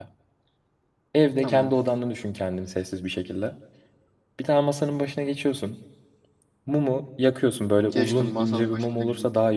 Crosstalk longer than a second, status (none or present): present